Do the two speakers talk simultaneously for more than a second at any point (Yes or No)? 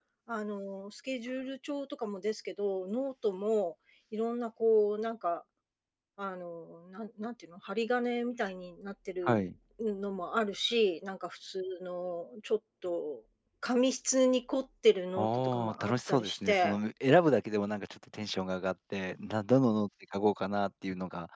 Yes